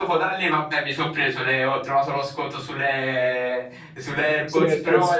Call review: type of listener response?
listening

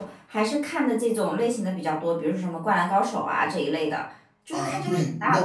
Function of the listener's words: taking over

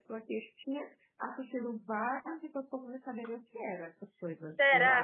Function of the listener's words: taking over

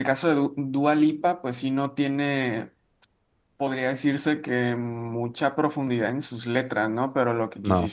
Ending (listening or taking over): listening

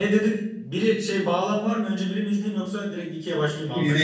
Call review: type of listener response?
taking over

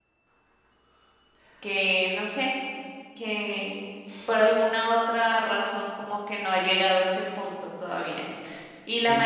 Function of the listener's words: listening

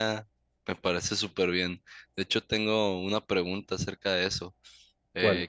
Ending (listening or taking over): listening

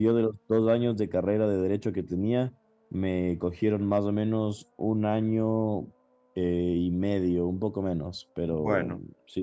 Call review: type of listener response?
listening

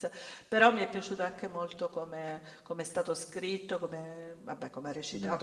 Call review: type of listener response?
listening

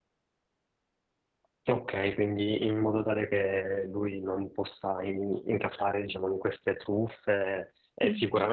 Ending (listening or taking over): listening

